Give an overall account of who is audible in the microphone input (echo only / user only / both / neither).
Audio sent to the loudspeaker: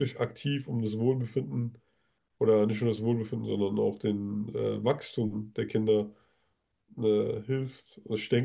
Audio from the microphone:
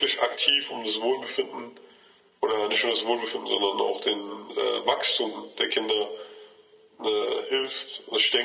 echo only